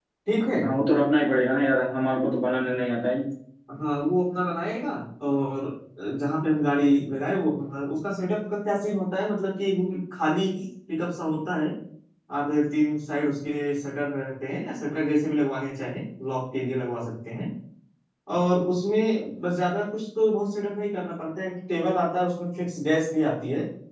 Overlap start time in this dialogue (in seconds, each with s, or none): none